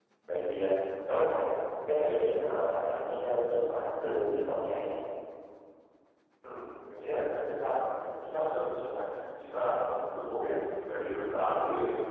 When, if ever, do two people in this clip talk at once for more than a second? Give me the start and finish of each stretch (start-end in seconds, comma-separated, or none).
none